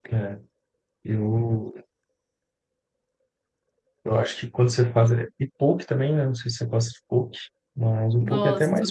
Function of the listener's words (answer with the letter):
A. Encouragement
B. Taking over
B